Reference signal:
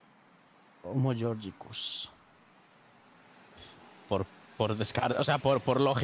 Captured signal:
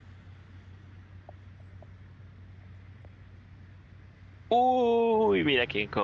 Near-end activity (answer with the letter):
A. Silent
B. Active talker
B